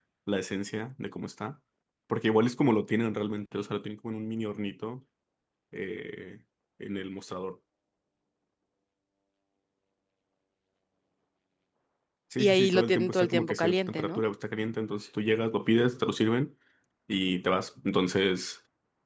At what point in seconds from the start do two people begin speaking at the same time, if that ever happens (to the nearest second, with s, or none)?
12 s